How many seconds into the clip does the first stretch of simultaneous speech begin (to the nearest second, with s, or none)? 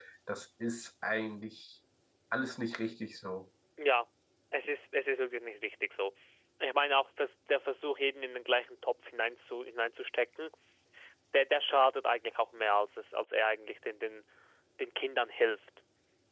none